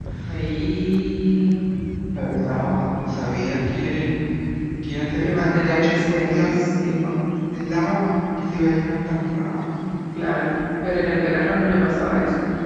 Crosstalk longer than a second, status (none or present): present